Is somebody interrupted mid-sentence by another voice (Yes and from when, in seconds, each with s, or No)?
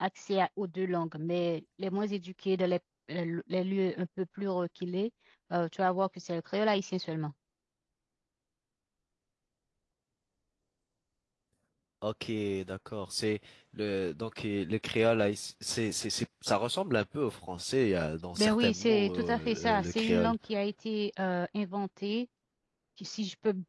Yes, from 18.4 s